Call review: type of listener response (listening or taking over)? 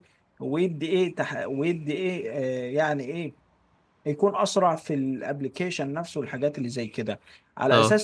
listening